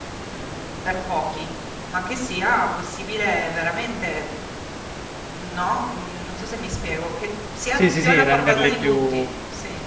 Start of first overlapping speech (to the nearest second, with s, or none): 8 s